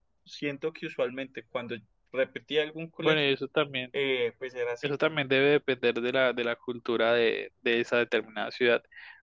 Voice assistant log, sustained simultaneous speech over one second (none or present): none